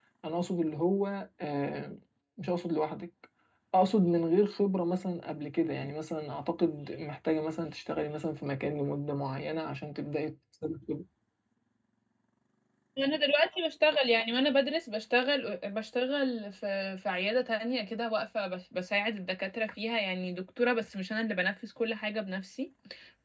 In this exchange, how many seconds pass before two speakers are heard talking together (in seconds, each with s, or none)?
none